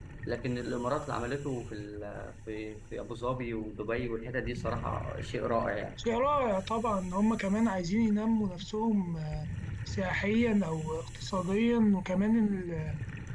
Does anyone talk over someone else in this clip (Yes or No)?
No